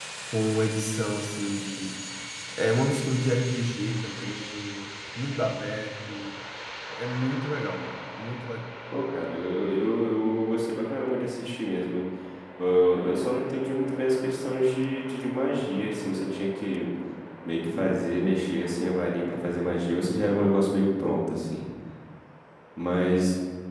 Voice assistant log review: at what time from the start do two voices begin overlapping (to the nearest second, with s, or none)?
none